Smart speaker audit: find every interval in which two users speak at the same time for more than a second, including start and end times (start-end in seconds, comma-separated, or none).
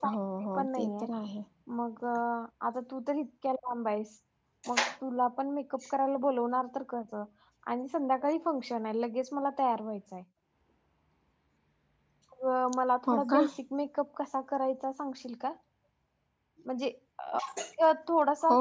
none